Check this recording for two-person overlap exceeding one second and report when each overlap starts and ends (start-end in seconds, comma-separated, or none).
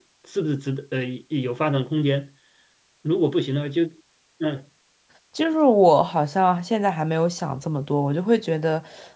none